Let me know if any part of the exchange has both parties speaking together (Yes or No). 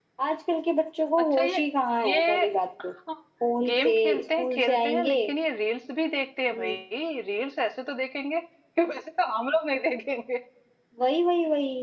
Yes